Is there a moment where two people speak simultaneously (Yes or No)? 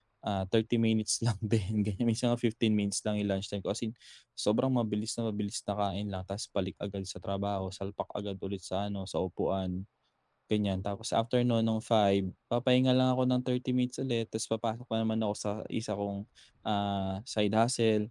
No